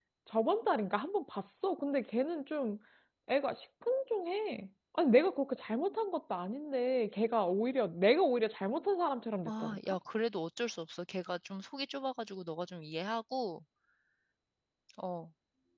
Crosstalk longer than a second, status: none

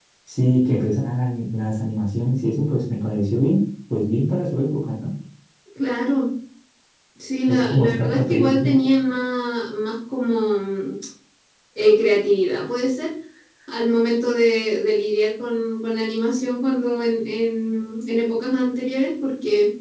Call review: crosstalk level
present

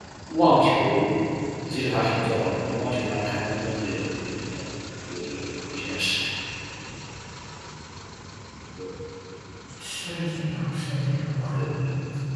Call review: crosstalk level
none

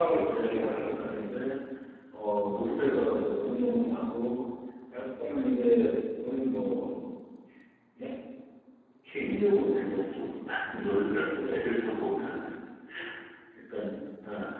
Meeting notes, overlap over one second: present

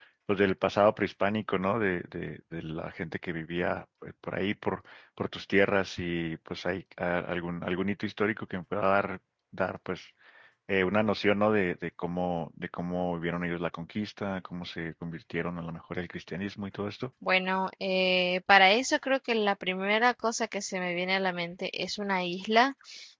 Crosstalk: none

